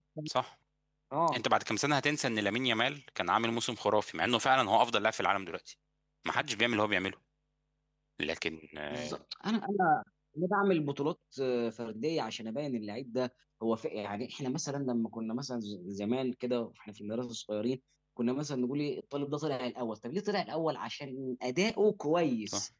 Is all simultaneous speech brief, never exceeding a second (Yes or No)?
Yes